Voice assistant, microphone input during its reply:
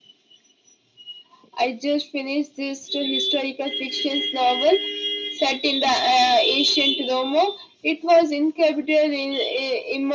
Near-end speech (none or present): none